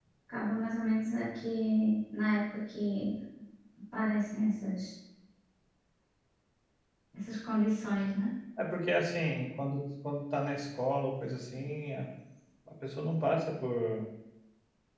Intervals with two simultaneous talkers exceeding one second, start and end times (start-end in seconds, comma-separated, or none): none